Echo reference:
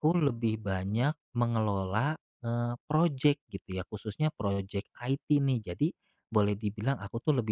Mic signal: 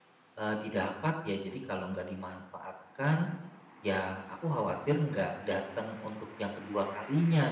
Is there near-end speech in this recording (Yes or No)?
Yes